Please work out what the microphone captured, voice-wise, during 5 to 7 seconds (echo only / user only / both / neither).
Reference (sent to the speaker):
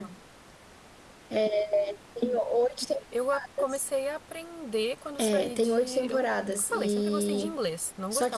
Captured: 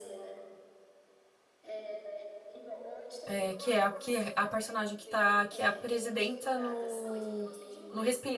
both